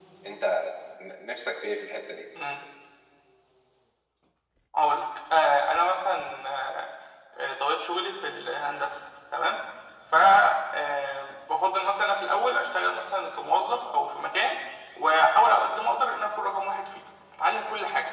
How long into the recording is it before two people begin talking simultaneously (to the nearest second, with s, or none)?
none